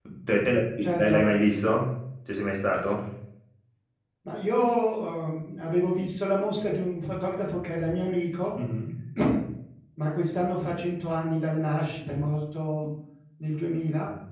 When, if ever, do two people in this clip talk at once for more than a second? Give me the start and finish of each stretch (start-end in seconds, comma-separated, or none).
none